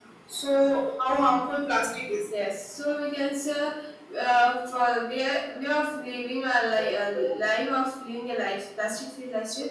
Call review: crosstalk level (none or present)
none